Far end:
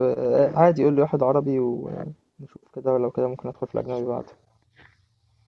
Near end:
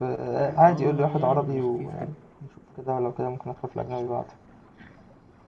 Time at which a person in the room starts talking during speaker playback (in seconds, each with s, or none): 0.6 s